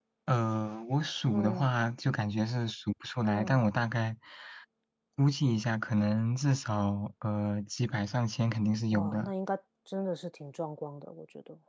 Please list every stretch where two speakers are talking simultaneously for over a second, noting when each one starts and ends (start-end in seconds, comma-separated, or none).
none